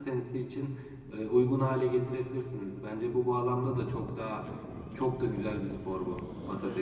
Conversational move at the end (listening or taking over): taking over